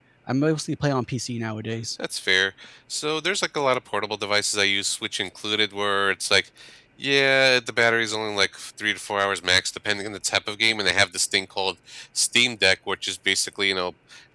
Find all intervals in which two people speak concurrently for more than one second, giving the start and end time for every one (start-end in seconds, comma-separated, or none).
none